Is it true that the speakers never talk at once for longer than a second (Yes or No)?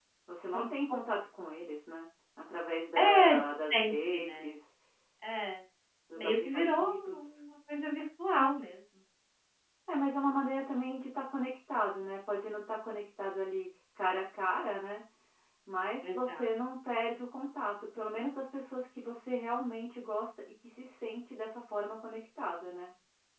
No